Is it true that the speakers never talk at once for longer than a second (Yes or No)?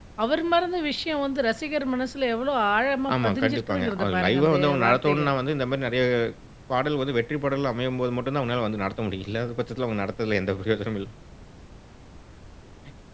No